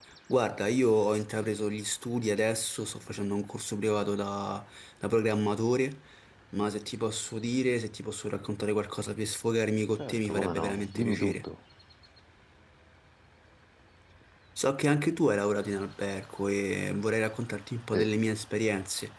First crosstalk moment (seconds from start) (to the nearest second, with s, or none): 10 s